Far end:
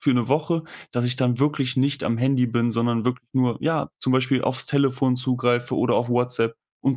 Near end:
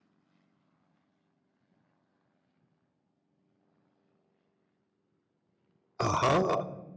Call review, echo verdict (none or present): none